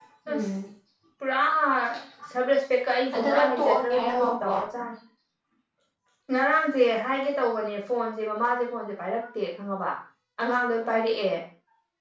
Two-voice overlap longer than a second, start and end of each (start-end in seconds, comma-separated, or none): 3.1-4.6